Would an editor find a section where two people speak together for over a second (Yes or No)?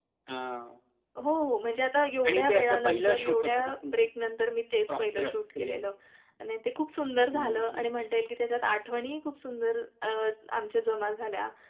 Yes